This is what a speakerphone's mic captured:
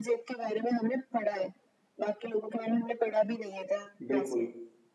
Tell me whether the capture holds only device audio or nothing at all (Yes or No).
No